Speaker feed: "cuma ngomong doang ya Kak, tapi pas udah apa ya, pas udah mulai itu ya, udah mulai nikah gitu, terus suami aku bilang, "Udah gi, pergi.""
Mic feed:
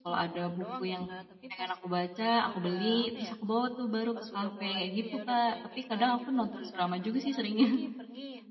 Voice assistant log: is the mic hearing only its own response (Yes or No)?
No